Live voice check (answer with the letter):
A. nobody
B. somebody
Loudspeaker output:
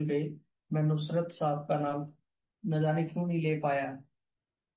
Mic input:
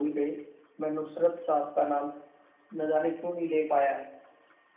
A